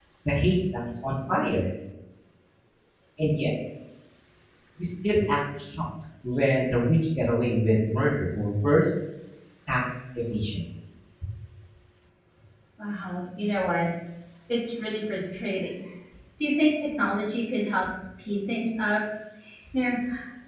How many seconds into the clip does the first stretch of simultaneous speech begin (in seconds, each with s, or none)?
none